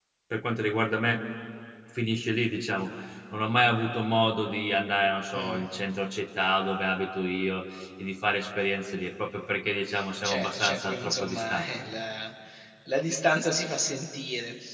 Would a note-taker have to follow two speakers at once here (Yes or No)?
Yes